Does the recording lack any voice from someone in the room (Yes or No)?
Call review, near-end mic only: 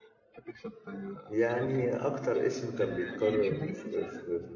No